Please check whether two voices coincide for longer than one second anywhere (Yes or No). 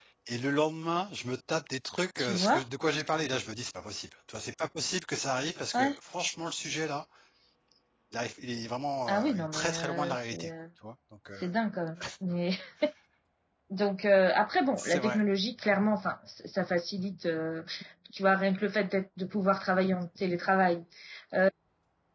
Yes